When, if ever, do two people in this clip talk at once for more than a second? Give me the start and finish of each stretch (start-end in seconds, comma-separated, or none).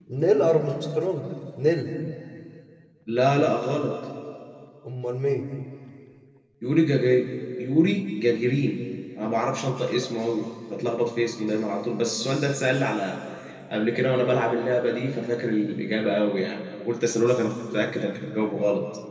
none